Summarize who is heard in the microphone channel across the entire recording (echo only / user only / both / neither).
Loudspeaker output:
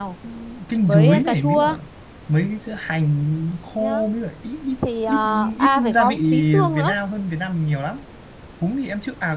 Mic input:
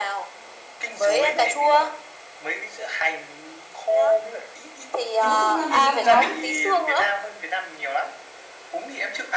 both